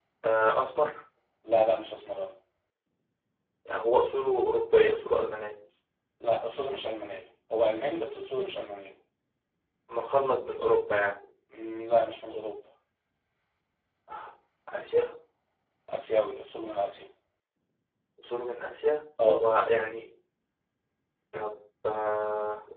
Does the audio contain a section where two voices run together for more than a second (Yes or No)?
No